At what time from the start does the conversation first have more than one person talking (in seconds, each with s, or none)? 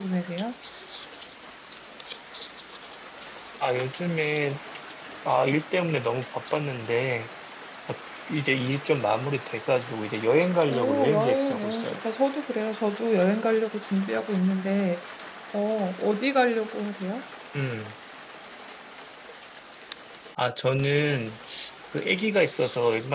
10.7 s